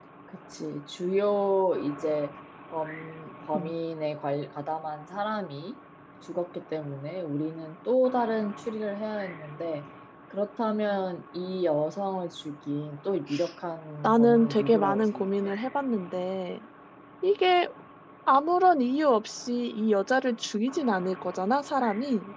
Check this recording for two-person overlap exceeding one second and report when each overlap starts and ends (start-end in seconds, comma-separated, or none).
14.0-15.5